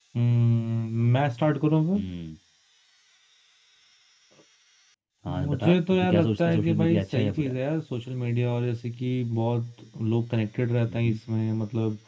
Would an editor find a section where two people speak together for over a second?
Yes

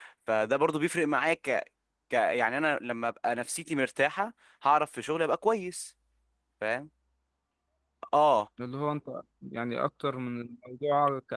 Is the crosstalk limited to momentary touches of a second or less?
Yes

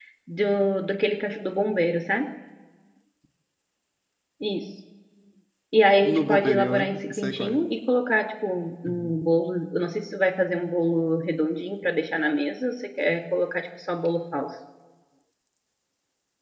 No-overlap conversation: No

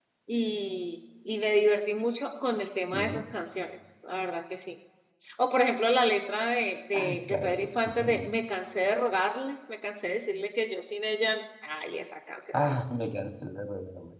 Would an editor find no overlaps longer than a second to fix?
No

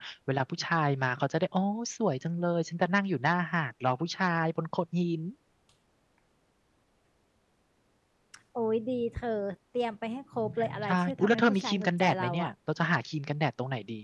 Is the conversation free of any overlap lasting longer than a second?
No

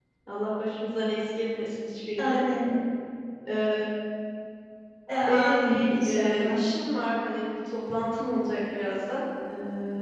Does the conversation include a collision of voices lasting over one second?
Yes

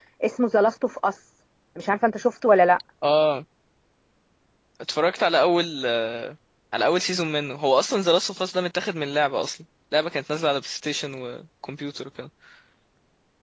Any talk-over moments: No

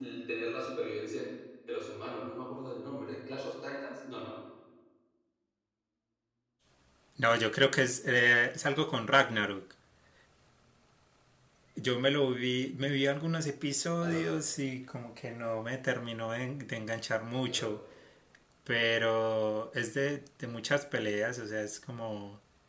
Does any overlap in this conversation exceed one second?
No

